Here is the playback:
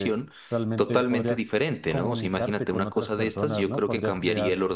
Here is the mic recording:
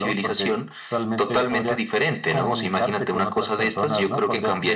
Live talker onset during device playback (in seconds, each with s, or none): none